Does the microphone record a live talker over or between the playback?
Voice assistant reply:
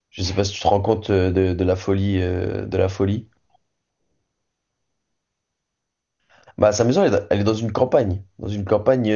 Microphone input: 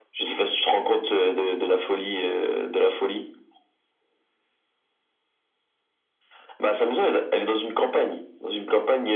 No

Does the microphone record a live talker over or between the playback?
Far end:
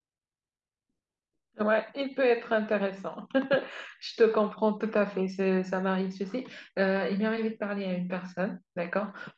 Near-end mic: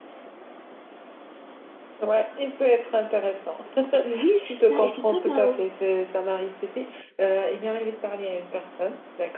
Yes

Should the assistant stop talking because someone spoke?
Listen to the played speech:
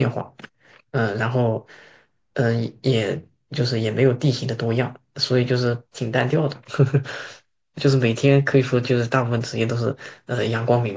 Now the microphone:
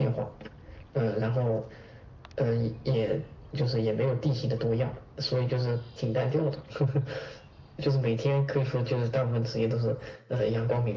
No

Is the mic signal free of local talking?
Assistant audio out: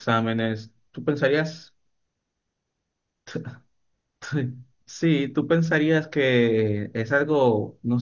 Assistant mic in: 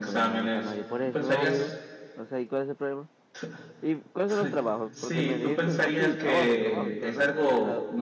No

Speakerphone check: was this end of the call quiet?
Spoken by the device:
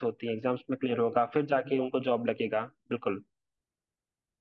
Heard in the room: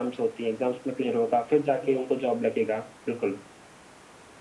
Yes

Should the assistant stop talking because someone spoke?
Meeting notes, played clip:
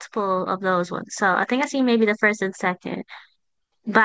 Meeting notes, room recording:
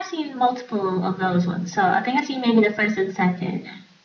No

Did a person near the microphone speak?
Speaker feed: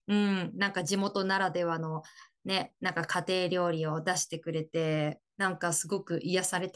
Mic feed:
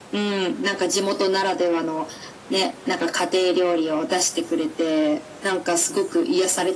No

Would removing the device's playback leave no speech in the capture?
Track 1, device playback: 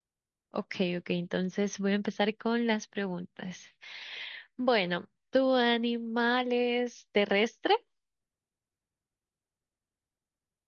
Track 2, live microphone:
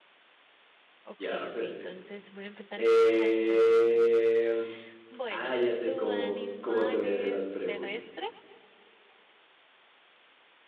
No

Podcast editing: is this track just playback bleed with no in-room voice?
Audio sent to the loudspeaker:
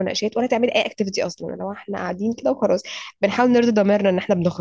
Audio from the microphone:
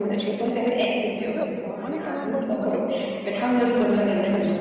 No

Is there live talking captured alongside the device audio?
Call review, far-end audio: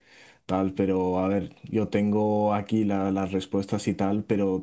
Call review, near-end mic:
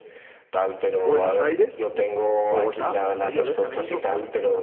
Yes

